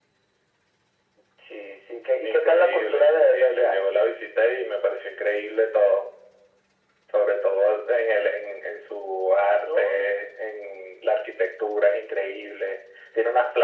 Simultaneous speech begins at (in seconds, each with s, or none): 2.2 s